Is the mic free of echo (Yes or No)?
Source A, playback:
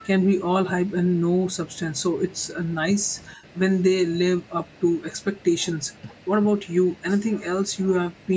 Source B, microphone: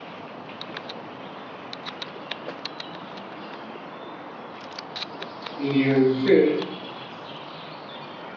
Yes